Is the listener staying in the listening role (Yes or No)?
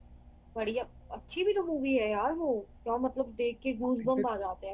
No